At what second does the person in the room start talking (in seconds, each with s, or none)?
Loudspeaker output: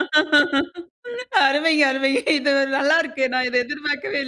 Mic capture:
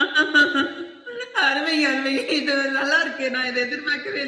none